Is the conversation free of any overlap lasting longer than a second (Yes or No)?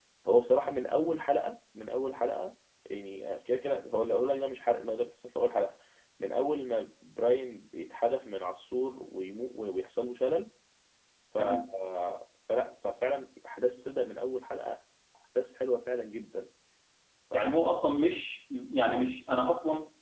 Yes